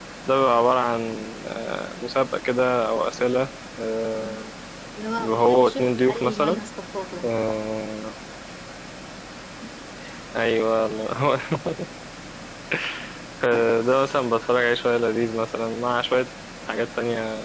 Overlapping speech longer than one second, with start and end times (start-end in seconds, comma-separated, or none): 5.2-6.6